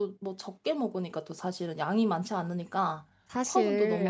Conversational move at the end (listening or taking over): taking over